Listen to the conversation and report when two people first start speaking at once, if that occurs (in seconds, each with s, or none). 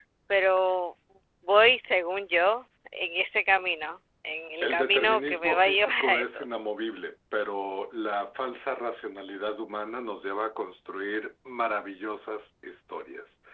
4.6 s